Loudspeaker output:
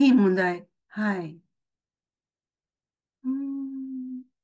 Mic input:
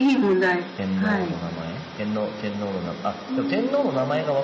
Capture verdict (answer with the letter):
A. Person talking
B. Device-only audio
A